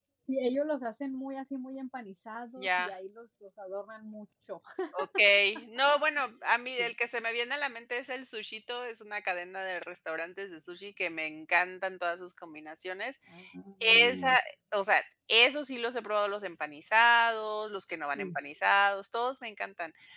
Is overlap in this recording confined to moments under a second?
Yes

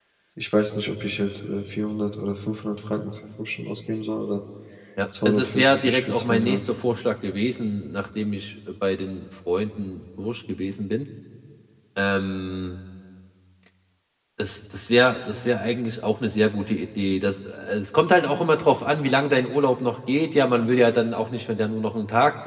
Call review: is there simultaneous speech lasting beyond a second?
Yes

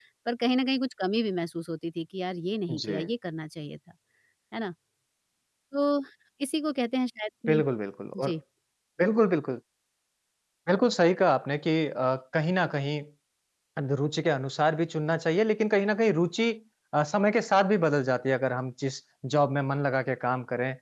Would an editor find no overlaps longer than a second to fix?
Yes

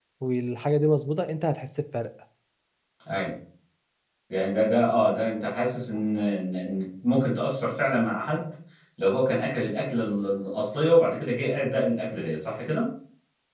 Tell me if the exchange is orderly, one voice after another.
Yes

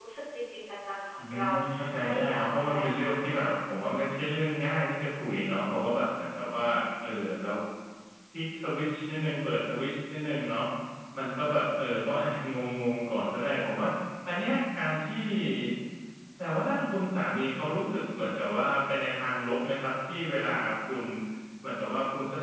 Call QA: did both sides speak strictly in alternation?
No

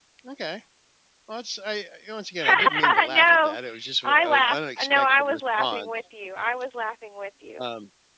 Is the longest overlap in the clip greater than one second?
Yes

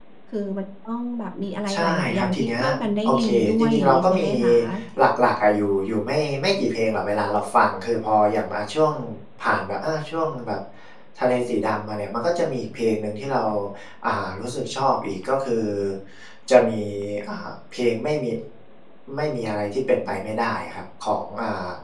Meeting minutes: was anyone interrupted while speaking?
Yes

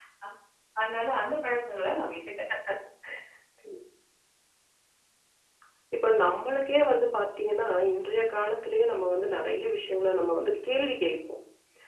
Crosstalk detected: No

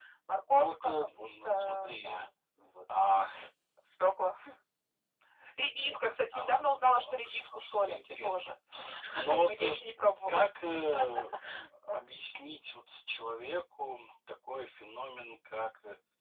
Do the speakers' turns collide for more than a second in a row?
Yes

